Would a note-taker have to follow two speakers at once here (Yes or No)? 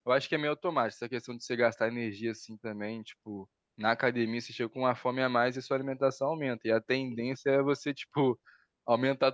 No